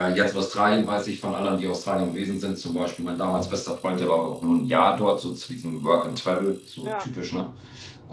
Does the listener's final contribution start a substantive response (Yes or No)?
No